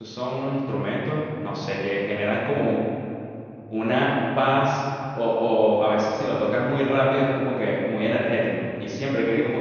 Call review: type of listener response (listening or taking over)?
listening